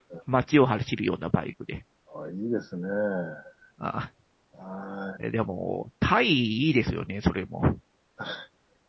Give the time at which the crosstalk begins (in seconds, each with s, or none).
none